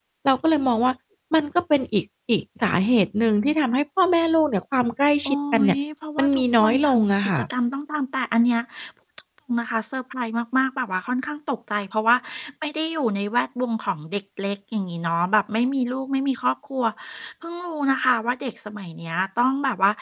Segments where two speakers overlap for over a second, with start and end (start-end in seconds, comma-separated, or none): 6.2-7.4